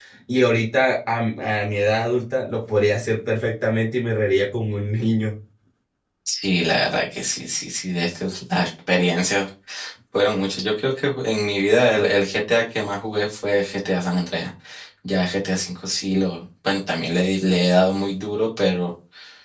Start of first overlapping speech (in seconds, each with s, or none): none